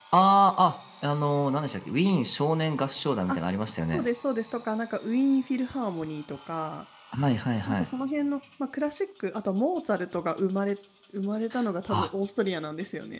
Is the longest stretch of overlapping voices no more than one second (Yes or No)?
Yes